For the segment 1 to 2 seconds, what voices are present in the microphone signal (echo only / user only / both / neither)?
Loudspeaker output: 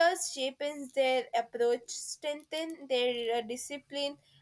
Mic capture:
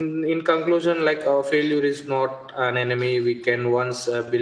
user only